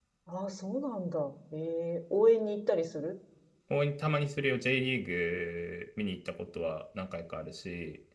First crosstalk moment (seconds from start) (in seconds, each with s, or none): none